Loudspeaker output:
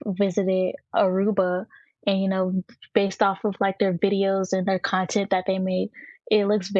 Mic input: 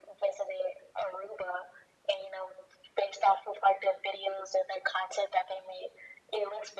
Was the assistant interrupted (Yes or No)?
No